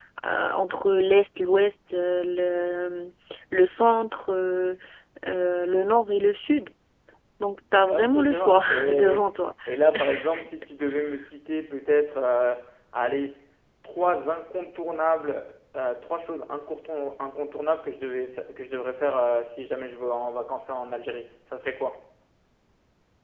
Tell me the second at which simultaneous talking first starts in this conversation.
7.9 s

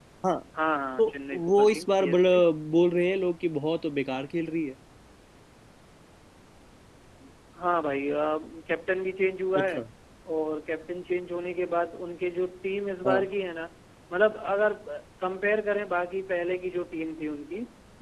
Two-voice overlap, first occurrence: 1.0 s

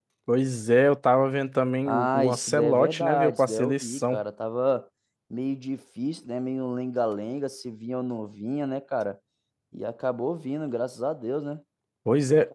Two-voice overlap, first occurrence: 1.9 s

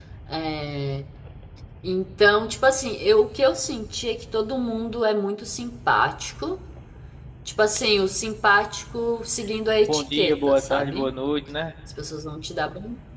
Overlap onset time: 9.9 s

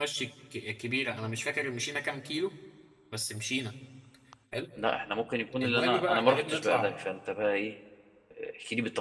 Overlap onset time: 5.6 s

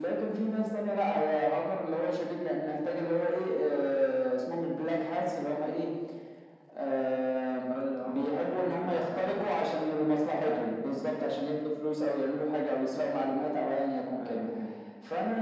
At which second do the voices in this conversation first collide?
8.1 s

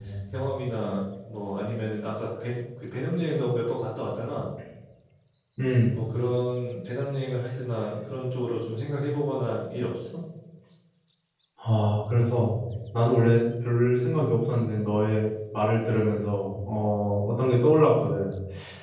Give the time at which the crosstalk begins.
none

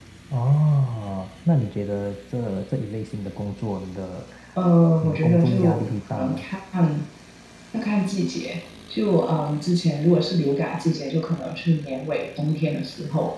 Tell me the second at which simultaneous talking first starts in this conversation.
5.0 s

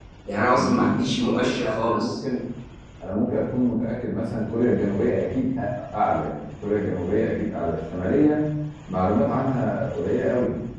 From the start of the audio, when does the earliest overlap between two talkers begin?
0.6 s

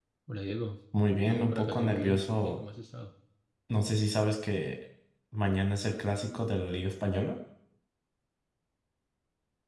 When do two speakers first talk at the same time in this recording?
1.2 s

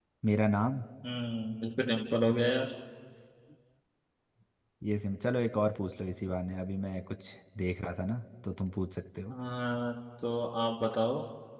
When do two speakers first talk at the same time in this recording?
none

